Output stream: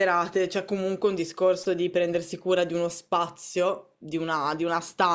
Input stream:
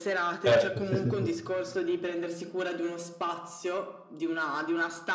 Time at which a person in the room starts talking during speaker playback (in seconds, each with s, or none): 0.4 s